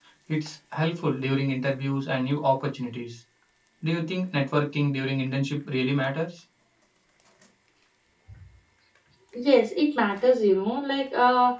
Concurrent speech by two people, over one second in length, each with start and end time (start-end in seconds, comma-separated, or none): none